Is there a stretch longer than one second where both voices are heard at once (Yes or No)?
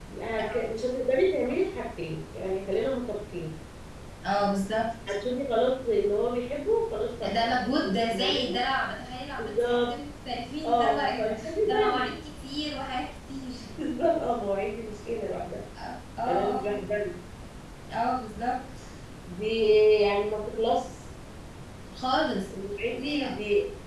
Yes